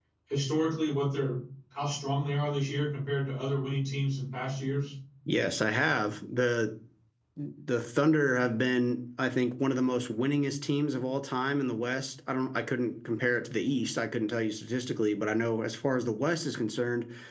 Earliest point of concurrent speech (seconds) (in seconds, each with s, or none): none